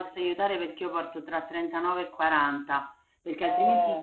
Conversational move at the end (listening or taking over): listening